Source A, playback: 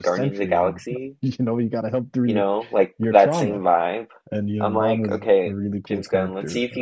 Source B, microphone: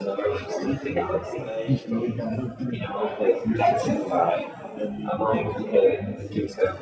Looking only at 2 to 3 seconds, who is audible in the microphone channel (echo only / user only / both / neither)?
both